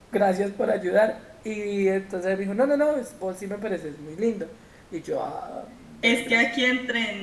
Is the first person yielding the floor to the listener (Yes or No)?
Yes